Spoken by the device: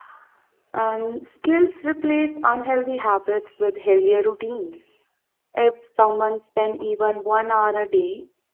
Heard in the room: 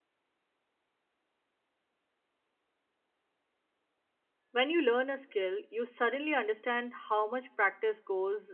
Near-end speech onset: 4.5 s

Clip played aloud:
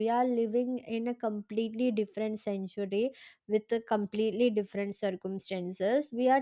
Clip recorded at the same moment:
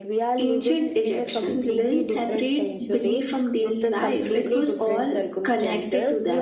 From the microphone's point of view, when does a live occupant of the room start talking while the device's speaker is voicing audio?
0.4 s

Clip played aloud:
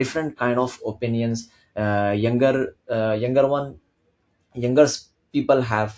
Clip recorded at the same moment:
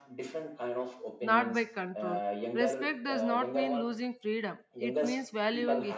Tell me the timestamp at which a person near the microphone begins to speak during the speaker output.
1.2 s

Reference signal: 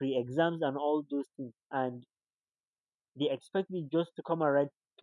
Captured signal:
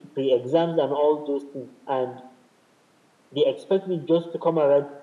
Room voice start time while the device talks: none

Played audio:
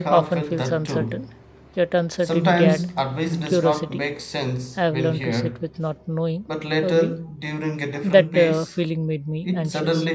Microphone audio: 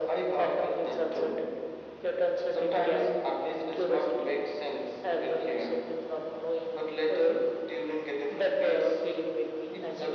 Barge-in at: none

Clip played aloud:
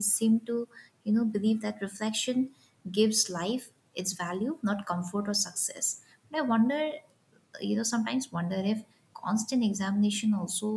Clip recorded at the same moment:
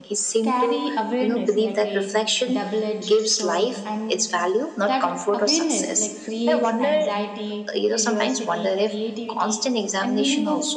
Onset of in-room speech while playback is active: 0.4 s

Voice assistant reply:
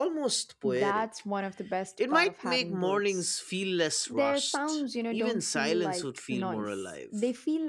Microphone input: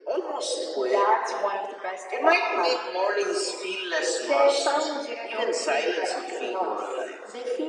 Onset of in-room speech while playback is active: none

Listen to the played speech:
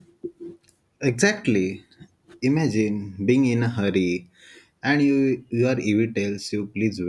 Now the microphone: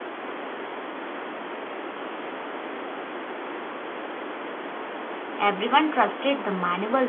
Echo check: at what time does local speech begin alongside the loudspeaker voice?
5.4 s

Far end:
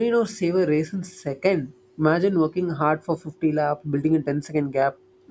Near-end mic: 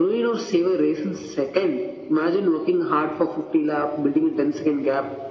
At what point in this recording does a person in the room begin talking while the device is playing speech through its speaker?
none

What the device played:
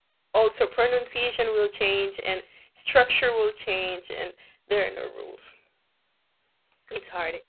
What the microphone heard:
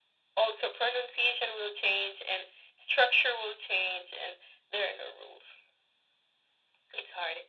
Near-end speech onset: none

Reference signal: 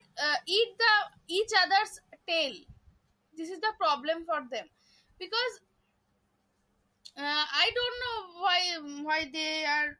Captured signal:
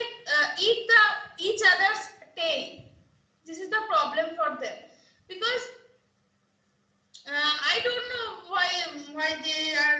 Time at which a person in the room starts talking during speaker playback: none

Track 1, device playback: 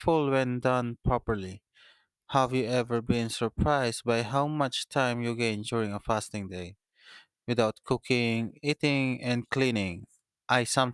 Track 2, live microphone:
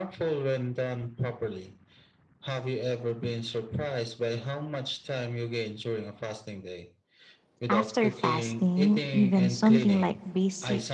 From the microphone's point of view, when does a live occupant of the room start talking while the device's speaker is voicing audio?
7.7 s

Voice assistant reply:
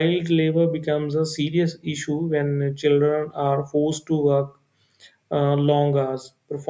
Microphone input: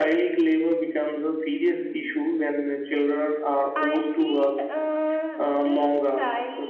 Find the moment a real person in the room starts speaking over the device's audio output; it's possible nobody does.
3.7 s

